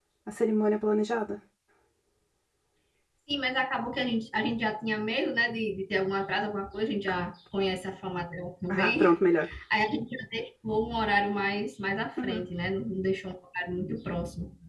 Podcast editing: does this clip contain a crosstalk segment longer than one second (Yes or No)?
No